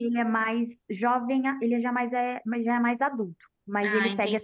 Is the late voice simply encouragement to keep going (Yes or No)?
Yes